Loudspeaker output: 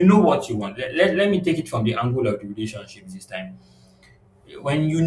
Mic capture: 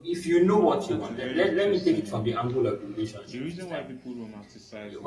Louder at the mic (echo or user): echo